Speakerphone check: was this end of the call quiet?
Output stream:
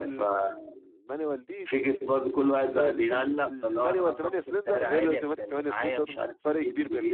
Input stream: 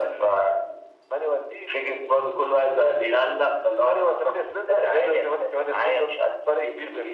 Yes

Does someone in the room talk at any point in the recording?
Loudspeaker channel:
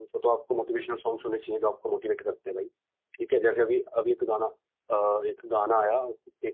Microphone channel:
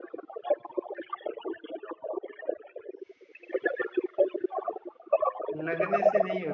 Yes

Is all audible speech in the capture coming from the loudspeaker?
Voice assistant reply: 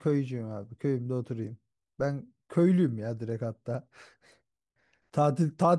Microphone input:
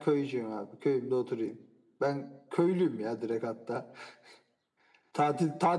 Yes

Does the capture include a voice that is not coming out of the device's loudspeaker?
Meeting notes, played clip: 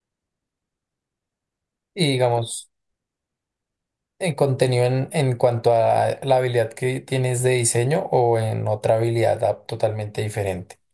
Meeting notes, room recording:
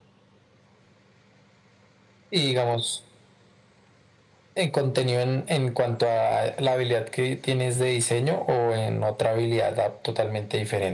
No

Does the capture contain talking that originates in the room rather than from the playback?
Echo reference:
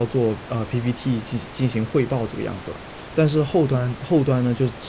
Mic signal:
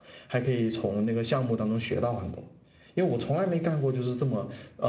Yes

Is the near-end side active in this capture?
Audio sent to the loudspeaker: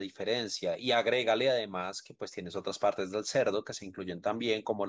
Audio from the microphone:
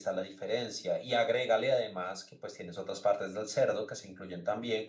No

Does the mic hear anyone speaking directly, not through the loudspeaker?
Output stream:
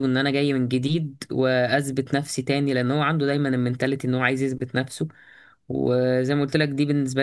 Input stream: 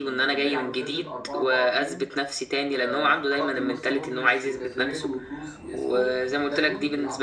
Yes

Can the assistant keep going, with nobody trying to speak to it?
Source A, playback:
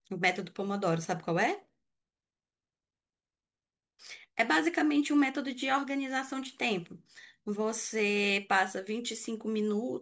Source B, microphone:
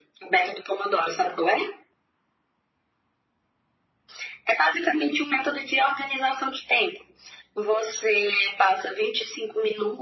Yes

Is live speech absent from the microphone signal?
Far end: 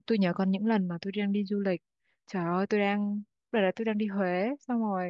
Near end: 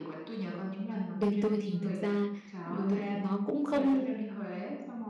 No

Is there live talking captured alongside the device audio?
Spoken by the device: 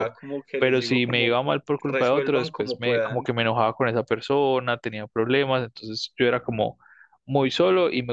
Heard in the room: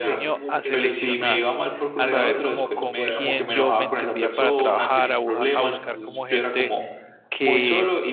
Yes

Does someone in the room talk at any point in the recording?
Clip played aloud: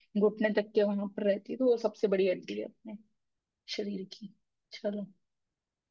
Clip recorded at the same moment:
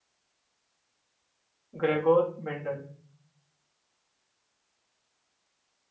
Yes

